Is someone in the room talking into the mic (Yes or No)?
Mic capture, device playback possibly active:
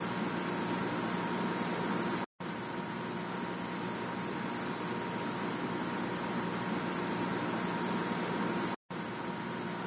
No